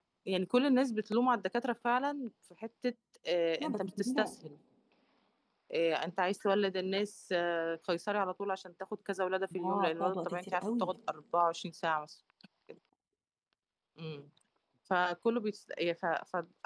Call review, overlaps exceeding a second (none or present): present